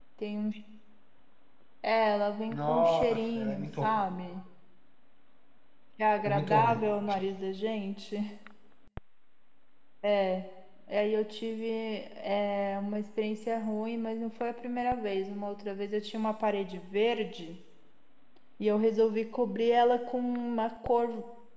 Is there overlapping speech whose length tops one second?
Yes, from 2.5 s

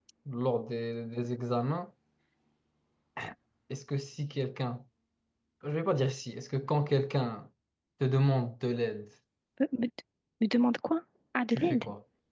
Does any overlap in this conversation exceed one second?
No

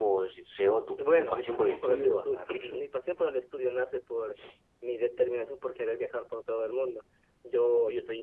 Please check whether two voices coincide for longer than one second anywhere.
Yes, from 1.2 s

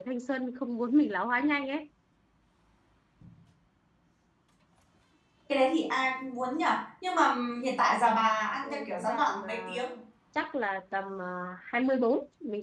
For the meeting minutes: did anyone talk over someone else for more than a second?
Yes, from 8.6 s

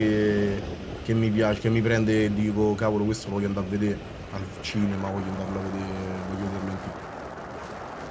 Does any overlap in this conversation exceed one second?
No

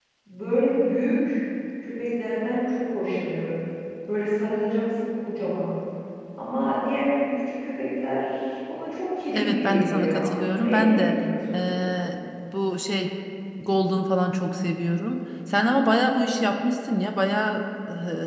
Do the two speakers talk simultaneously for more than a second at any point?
Yes, from 9.3 s

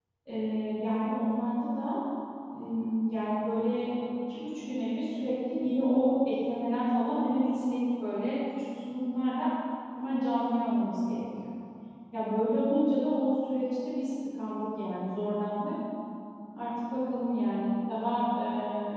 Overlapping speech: No

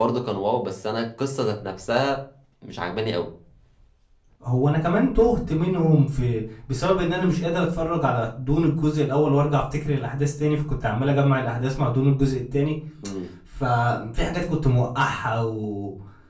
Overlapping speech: No

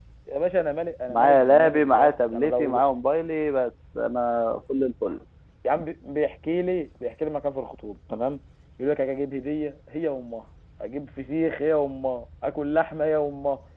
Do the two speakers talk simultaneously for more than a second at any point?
Yes, from 1.1 s

